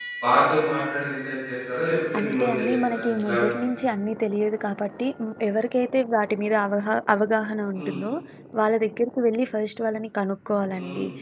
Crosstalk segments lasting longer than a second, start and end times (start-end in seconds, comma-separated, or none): 2.2-3.7